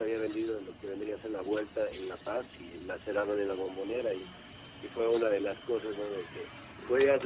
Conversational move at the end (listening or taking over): listening